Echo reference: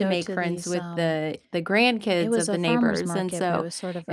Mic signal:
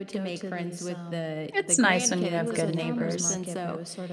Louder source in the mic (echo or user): user